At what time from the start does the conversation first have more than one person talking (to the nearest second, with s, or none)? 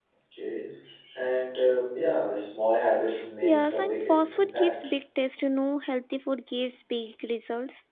3 s